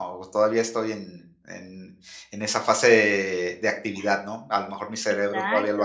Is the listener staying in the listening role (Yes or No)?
No